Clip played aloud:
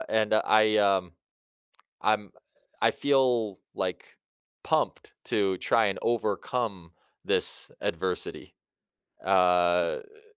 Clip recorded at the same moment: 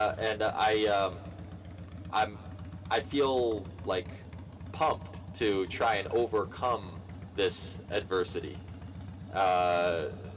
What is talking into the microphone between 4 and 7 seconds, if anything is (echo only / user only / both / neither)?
echo only